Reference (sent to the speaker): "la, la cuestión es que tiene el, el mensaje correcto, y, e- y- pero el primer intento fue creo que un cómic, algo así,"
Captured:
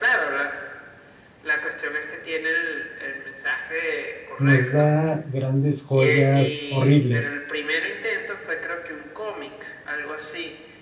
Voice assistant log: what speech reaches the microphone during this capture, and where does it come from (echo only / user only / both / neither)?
both